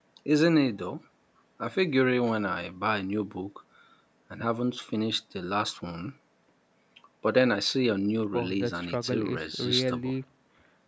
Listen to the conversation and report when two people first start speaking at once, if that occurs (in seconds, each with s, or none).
8.3 s